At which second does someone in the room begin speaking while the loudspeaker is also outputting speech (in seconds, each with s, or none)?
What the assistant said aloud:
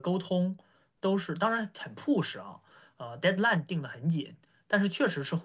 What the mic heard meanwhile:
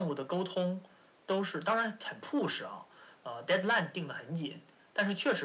none